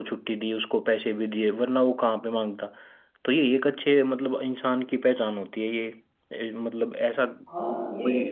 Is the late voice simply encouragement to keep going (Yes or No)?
No